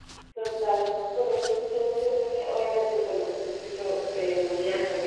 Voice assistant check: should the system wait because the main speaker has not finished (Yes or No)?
Yes